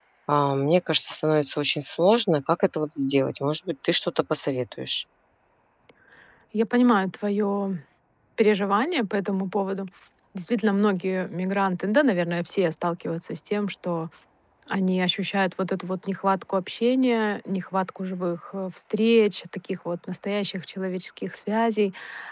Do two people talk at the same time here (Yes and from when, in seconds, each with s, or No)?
No